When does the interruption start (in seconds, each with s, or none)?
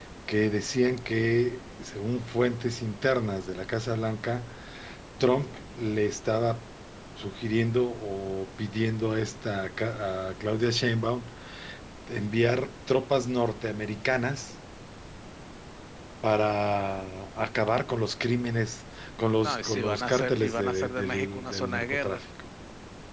19.4 s